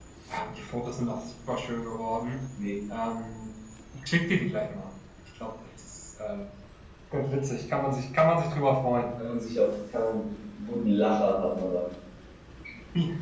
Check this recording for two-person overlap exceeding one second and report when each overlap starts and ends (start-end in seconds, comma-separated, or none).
none